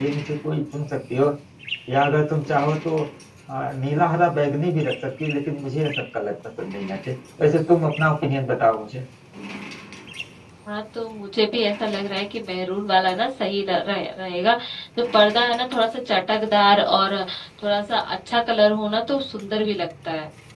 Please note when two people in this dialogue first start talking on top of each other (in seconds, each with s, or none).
none